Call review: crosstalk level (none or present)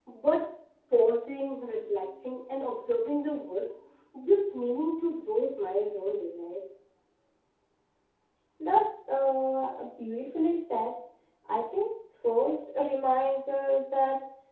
none